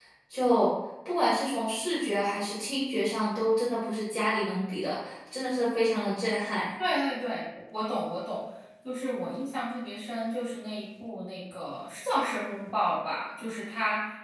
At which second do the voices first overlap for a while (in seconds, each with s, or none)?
none